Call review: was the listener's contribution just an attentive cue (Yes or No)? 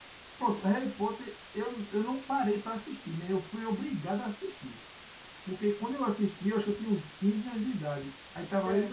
Yes